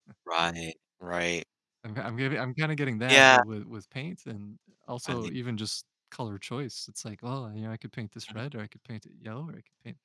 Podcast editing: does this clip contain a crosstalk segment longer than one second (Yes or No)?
No